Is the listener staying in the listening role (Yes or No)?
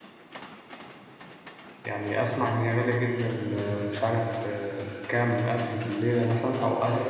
No